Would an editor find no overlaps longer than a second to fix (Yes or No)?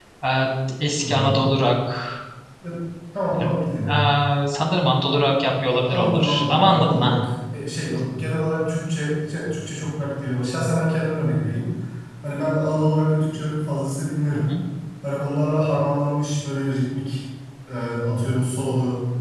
No